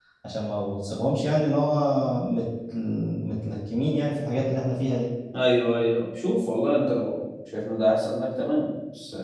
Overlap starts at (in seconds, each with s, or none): none